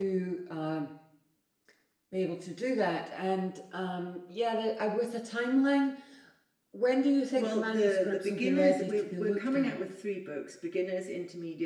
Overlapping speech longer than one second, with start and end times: 7.4-9.8

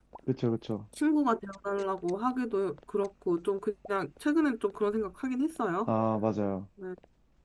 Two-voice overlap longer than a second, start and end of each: none

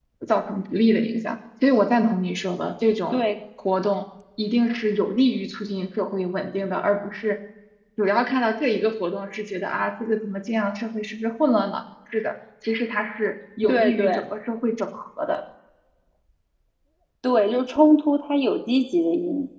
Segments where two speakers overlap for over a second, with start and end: none

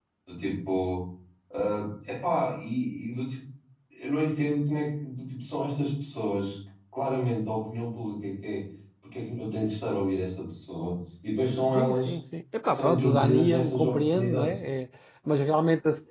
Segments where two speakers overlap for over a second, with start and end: 12.7-14.5

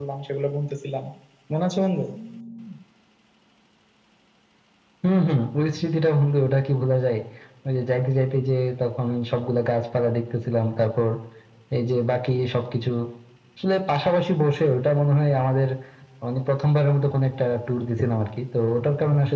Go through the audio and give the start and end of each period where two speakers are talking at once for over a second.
none

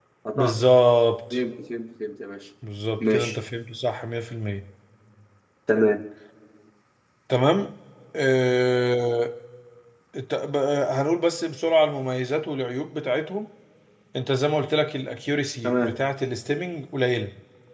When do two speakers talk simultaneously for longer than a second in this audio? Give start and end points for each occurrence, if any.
none

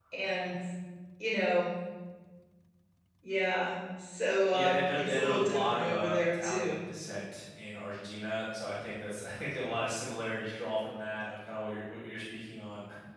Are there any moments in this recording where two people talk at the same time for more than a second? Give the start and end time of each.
4.5-6.8

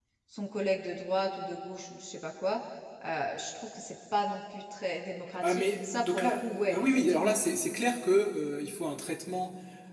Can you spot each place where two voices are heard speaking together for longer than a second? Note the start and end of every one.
5.4-7.4

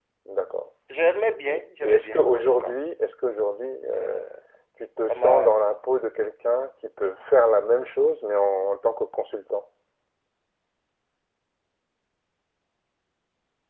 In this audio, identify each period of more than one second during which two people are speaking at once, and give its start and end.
1.5-2.8

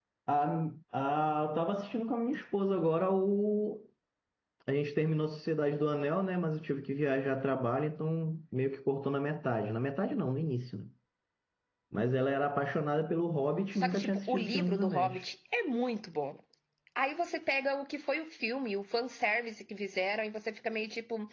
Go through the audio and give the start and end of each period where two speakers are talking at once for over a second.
13.8-15.2

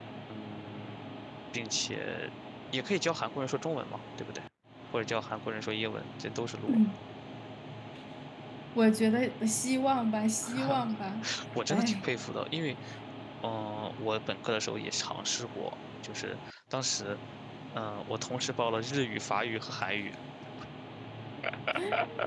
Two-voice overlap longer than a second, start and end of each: none

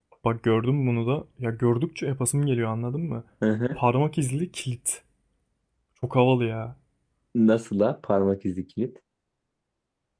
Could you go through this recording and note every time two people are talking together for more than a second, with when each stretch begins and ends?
none

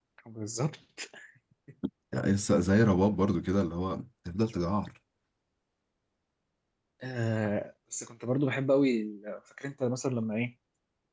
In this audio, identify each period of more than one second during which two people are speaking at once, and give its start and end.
none

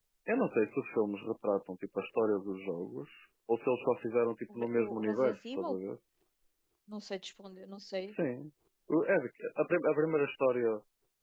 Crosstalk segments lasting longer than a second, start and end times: 4.5-5.8

